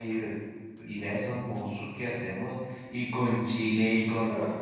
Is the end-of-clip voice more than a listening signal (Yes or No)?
No